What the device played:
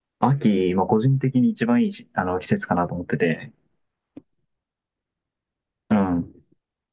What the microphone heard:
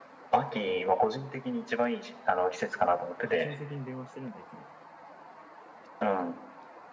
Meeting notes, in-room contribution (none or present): present